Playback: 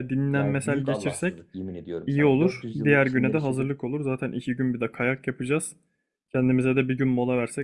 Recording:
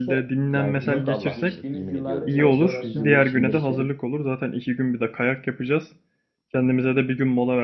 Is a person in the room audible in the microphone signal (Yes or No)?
Yes